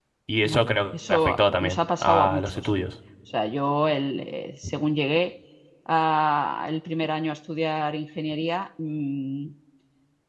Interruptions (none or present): present